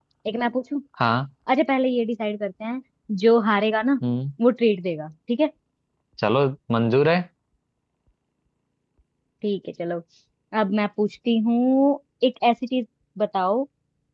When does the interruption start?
none

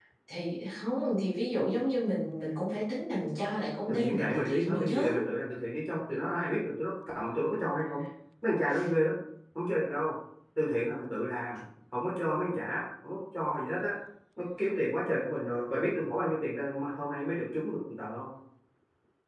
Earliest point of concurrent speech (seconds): 3.9 s

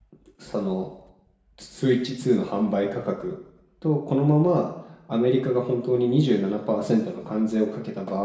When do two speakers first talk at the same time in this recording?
none

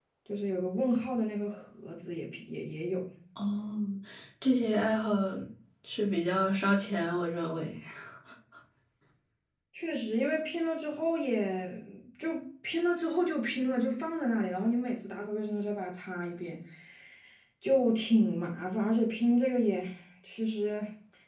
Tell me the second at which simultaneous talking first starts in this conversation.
none

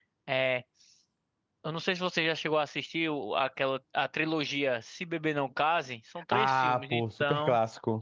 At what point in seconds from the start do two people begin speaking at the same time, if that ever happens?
6.3 s

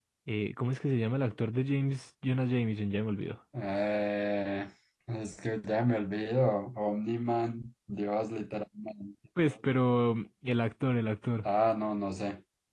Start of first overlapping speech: none

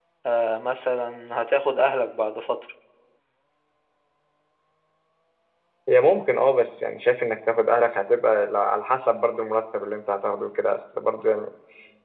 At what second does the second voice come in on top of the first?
none

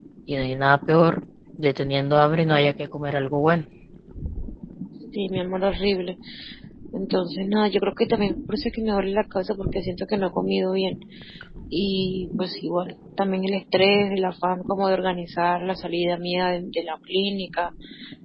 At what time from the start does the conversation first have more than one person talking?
none

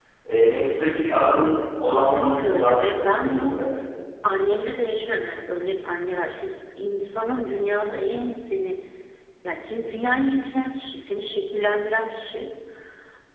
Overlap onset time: 1.8 s

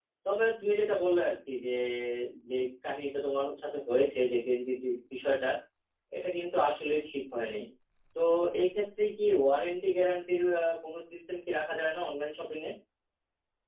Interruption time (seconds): none

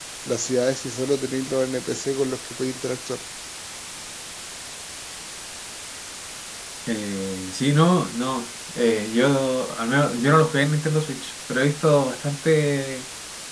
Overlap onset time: none

